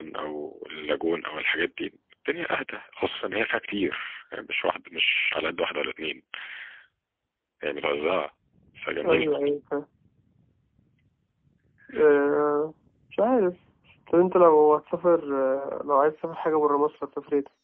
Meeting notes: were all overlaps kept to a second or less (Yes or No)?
Yes